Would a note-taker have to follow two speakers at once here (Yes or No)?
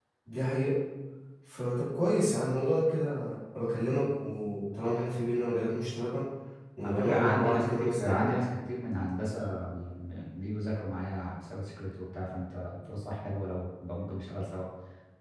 Yes